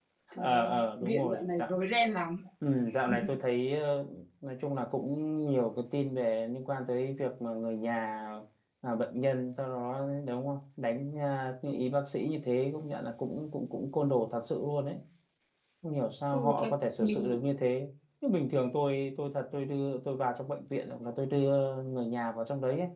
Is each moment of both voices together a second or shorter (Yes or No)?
No